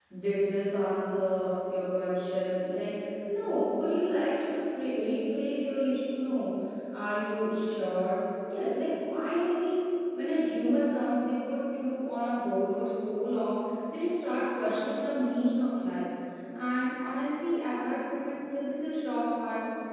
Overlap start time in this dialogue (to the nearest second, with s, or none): none